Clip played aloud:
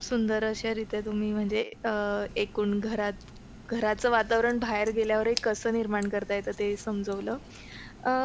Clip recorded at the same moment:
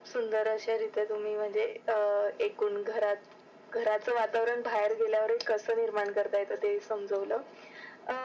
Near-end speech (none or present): none